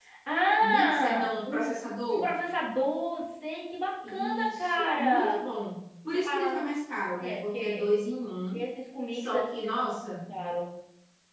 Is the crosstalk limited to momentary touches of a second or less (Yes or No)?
No